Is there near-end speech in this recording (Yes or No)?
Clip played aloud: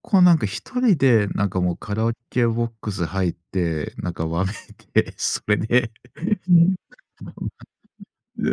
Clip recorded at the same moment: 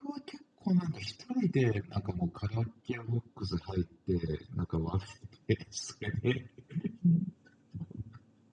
No